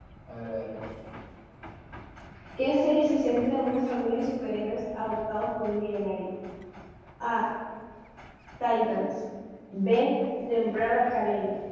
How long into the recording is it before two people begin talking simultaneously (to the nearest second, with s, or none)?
none